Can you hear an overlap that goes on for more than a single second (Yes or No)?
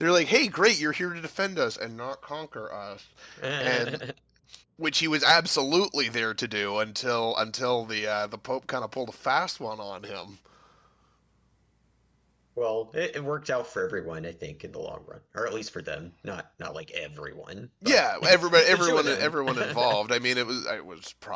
Yes